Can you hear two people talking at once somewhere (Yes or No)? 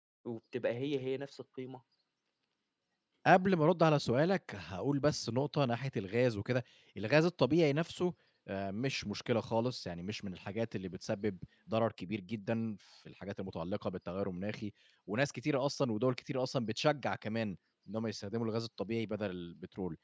No